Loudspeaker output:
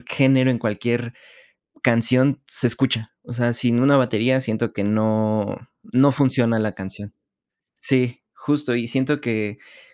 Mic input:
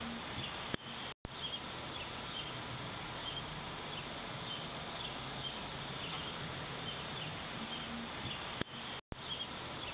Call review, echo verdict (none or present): none